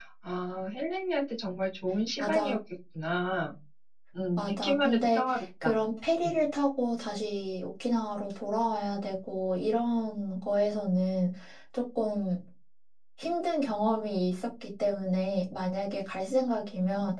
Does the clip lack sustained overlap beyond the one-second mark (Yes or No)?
No